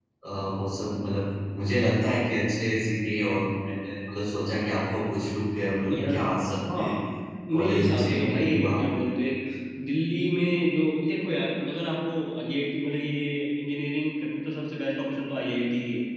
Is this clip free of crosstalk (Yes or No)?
No